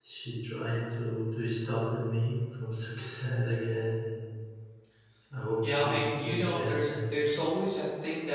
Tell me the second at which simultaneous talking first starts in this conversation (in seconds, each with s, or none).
5.6 s